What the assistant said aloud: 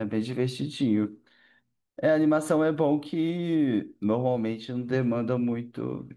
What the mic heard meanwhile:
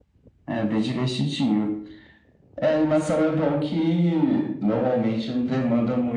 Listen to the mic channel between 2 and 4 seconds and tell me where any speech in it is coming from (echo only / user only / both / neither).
echo only